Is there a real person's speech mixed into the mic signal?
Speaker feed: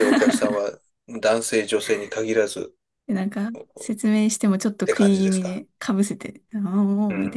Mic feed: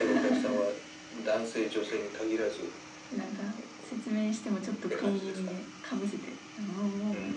No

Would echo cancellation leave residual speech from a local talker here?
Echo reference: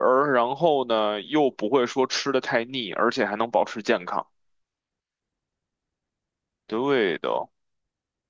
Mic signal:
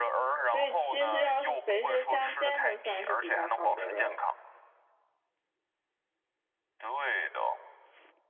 Yes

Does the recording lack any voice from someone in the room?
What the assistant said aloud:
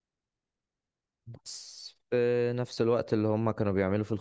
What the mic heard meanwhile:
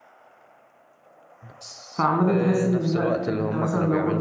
No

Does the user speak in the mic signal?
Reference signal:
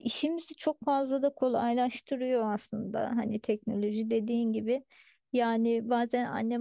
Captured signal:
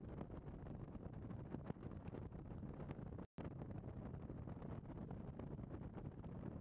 No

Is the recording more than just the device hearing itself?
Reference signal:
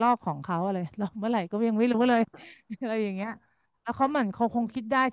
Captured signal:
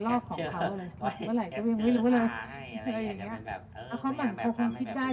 Yes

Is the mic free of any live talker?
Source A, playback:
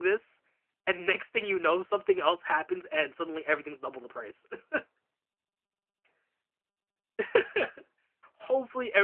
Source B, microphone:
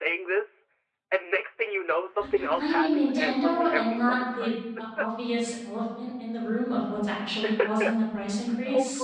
No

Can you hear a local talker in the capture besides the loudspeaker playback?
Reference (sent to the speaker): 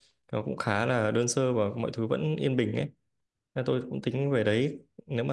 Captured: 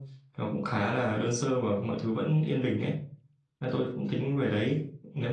No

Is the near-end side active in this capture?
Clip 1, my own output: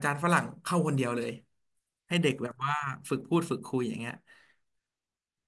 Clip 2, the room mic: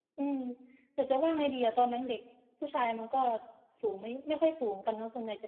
Yes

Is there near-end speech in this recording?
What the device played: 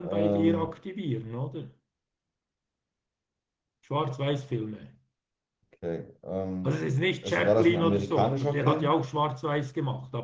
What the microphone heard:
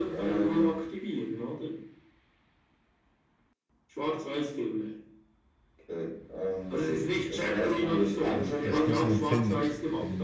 Yes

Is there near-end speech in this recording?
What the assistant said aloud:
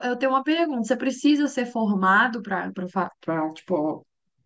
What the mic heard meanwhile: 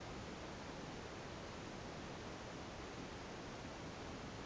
No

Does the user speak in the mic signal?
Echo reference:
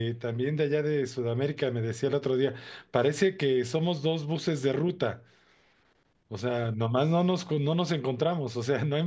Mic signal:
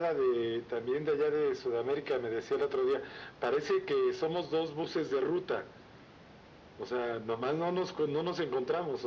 No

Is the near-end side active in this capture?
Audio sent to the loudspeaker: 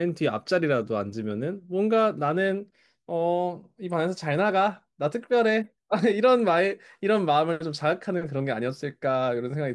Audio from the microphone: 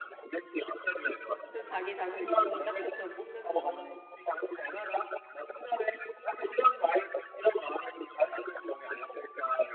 Yes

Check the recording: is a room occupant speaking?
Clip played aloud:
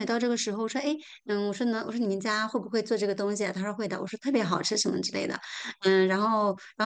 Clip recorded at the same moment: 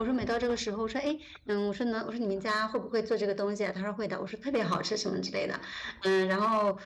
No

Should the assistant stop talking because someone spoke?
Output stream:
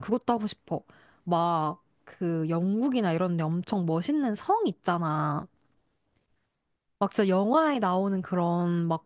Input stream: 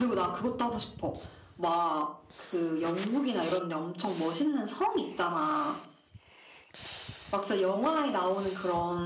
No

